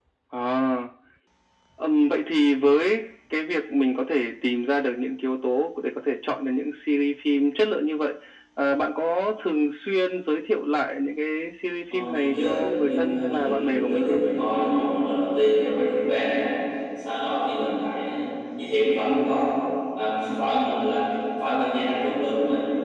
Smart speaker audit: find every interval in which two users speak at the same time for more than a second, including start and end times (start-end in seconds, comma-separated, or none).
11.9-14.2